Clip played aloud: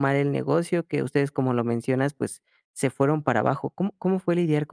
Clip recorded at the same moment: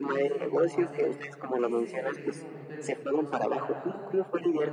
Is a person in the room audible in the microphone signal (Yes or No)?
Yes